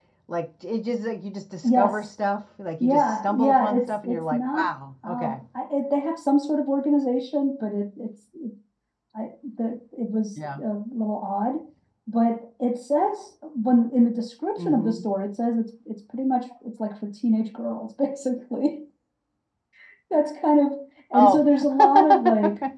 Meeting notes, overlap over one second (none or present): present